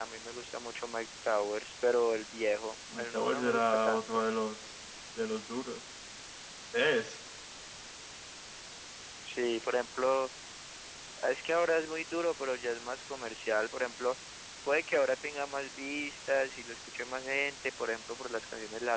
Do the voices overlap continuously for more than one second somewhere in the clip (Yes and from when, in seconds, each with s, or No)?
Yes, from 2.9 s